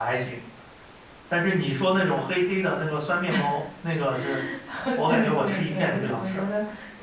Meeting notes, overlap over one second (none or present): present